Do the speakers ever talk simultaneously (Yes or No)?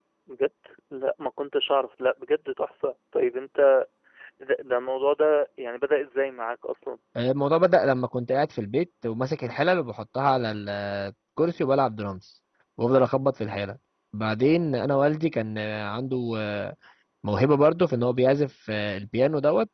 No